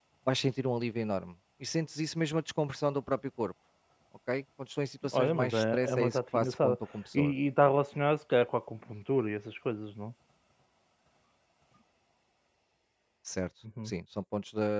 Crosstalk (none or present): present